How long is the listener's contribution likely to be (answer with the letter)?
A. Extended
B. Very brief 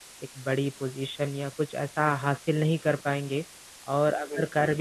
B